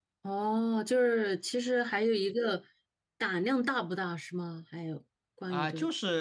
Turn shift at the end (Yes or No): Yes